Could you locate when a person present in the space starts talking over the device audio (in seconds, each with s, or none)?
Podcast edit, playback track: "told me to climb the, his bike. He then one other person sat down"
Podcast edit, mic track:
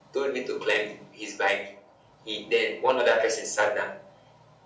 none